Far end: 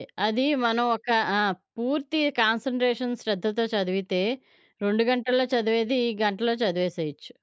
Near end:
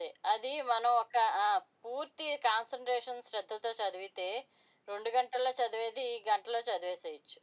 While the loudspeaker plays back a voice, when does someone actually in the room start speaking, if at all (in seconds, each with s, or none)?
none